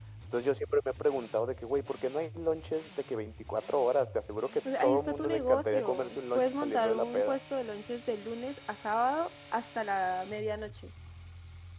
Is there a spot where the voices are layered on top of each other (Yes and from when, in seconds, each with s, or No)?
Yes, from 4.7 s